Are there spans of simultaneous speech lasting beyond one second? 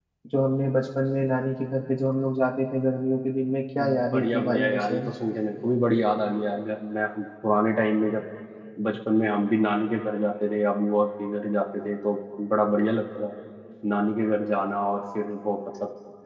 Yes, from 3.8 s

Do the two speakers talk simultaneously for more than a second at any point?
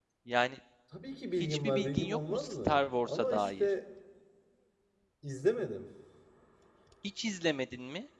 Yes, from 1.4 s

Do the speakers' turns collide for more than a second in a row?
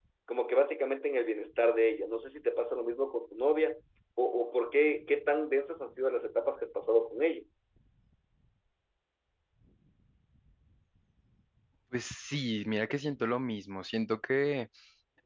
No

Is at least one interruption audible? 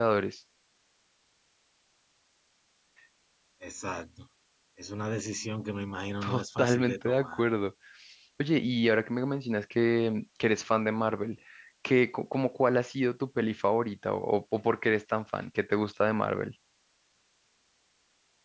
Yes, from 6.2 s

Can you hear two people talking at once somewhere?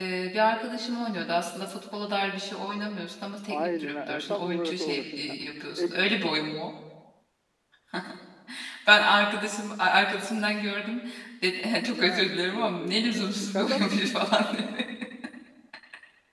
Yes, from 3.5 s

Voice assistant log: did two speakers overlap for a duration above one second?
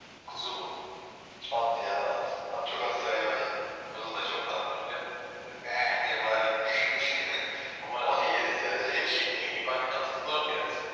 No

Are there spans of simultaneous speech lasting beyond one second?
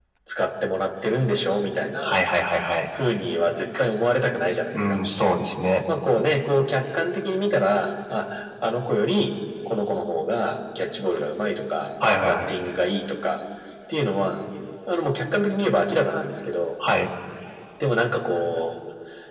No

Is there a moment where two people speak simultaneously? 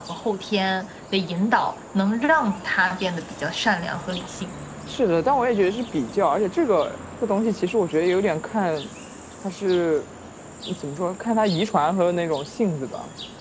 No

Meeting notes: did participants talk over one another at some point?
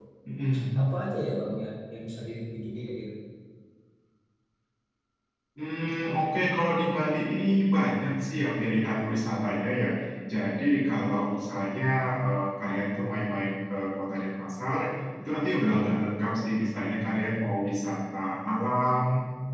No

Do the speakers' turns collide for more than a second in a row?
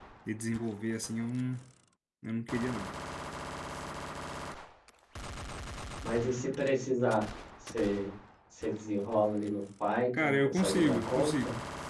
Yes, from 10.1 s

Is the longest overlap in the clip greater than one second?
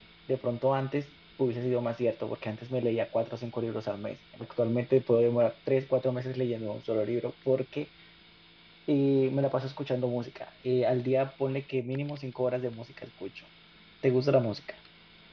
No

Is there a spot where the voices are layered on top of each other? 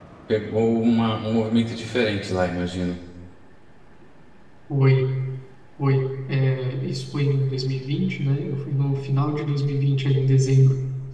No

